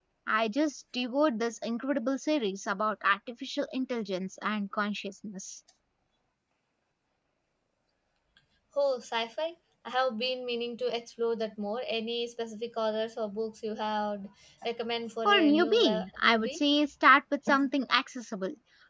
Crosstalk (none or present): present